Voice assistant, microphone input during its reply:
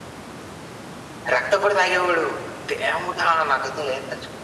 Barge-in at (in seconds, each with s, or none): none